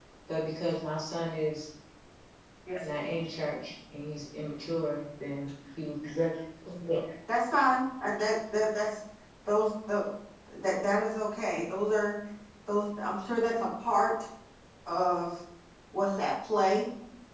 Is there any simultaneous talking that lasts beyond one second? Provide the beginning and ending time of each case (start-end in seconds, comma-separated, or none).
none